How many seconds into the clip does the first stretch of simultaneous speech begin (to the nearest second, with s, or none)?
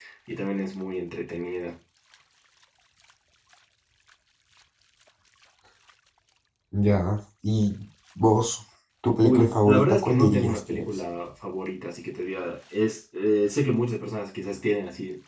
9 s